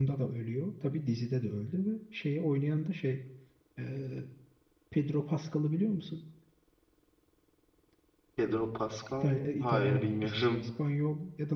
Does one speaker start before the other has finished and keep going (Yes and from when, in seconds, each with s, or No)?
Yes, from 9.2 s